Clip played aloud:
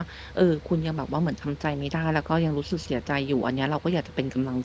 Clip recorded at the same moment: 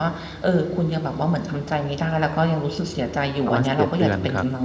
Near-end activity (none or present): present